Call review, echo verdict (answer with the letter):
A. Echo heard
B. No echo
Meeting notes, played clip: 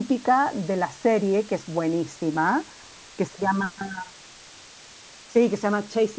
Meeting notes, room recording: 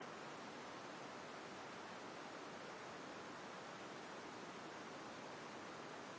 B